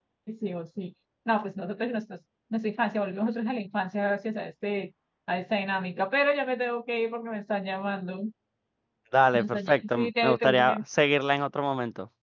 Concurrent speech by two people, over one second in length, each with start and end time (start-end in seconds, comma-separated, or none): 9.3-10.8